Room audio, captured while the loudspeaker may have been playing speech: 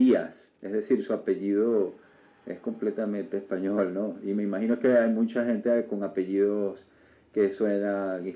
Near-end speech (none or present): none